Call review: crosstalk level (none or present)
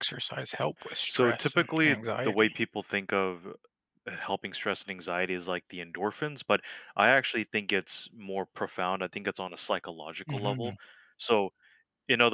present